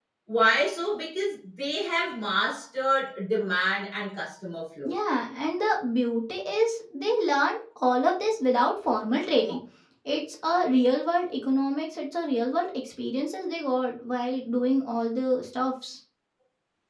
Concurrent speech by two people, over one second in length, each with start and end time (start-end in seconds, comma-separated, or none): none